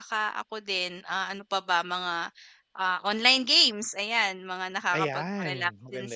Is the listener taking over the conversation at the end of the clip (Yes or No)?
Yes